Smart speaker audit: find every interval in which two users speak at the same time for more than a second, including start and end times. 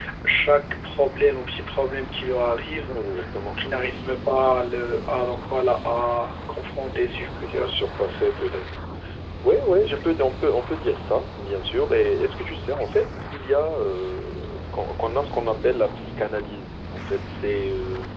none

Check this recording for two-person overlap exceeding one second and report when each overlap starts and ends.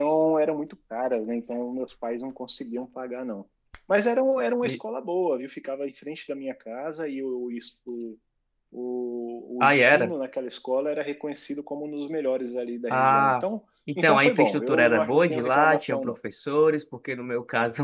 14.0-16.2

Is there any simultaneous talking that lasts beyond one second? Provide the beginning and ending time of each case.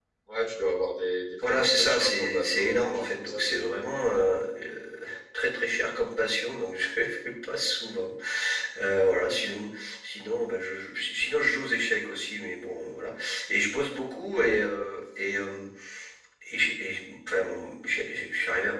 1.4-3.7

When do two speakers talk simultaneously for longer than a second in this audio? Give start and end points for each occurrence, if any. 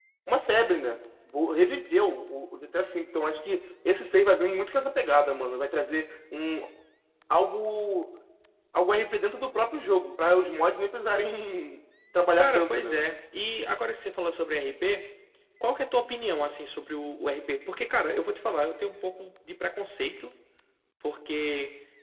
none

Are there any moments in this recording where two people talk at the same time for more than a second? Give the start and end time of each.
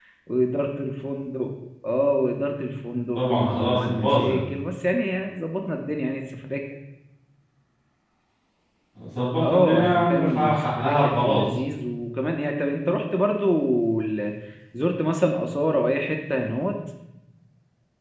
3.1-4.4, 9.4-11.4

